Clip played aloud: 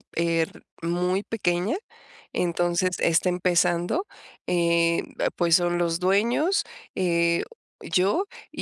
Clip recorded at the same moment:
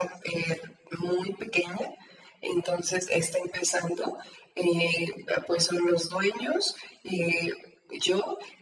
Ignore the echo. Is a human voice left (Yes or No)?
No